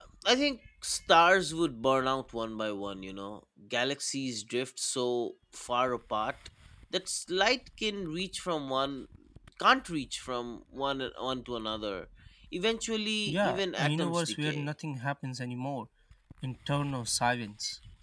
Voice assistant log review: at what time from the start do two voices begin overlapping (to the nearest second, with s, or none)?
13 s